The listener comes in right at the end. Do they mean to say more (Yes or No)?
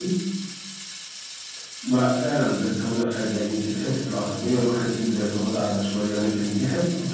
No